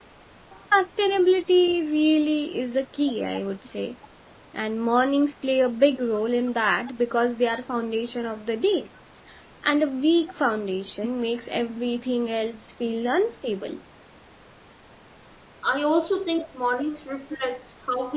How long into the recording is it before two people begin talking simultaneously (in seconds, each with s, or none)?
none